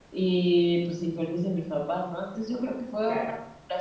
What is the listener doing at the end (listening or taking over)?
listening